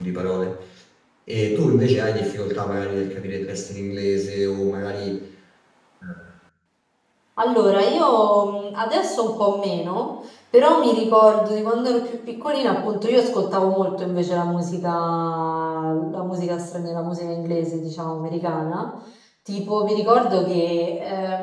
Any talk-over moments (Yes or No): No